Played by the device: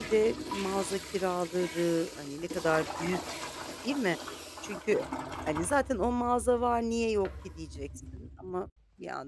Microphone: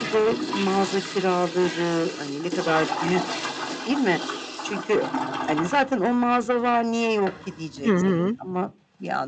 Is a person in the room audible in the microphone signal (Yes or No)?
Yes